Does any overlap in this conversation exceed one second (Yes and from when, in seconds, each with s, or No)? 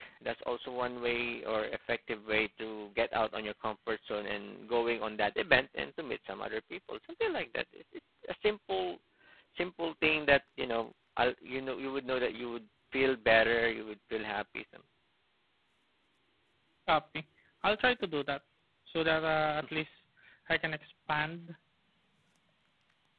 No